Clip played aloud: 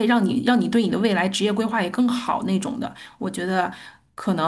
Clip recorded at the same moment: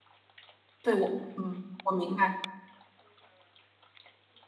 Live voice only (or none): 对我，嗯，我明白。